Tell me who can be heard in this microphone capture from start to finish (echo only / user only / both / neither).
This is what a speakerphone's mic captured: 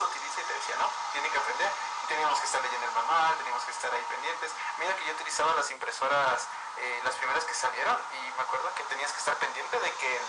echo only